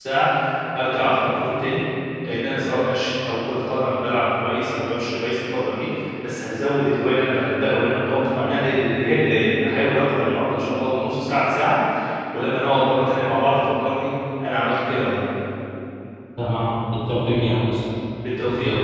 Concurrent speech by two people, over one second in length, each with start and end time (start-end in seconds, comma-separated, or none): none